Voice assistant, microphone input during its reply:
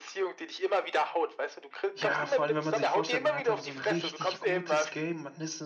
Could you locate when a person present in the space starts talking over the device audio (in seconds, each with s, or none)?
1.9 s